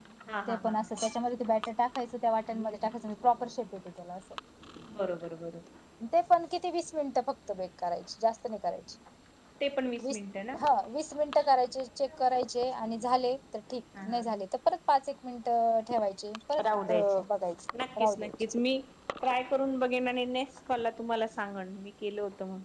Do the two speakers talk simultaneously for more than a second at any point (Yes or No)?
No